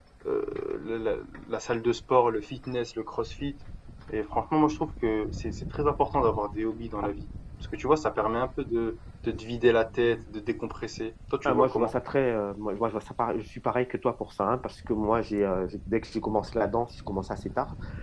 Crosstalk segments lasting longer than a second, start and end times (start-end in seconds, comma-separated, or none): none